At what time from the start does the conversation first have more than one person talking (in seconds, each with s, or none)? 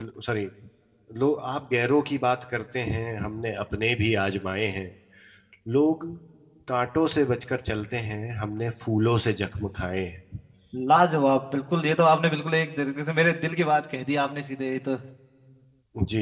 none